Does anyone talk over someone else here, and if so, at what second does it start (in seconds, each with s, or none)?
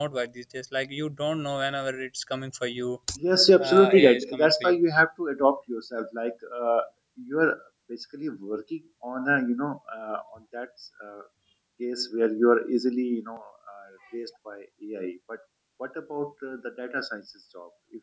3.6 s